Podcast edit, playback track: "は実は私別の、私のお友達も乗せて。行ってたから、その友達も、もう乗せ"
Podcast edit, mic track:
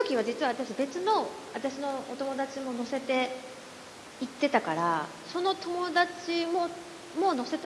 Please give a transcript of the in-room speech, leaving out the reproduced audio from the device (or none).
none